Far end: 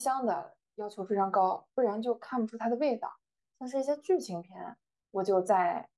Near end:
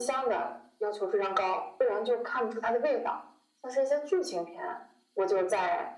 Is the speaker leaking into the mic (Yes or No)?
Yes